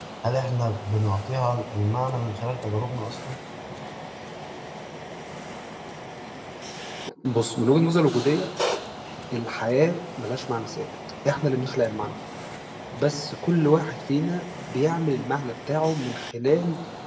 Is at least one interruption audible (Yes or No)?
No